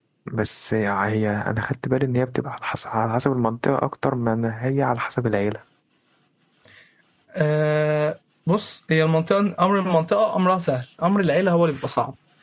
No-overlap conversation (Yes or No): Yes